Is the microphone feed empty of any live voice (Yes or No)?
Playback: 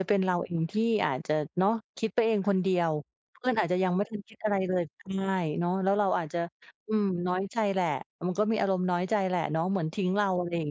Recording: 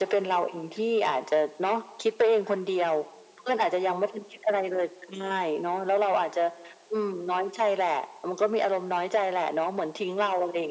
Yes